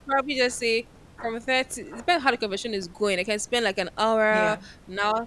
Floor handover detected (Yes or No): No